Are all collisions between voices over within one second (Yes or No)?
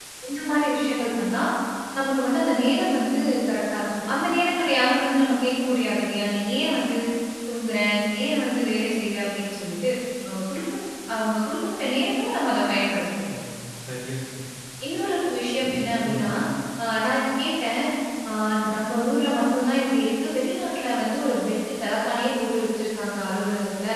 Yes